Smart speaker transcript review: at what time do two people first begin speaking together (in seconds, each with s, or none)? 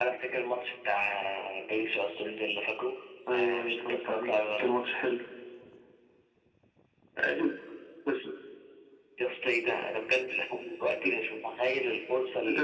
3.3 s